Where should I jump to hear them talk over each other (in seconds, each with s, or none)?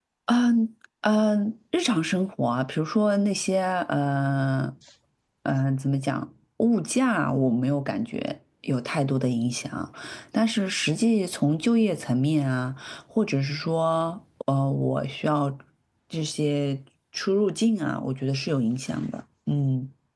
none